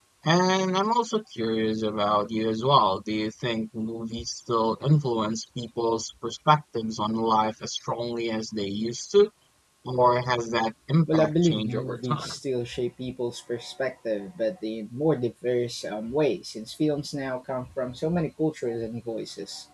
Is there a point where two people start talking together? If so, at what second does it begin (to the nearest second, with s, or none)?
11 s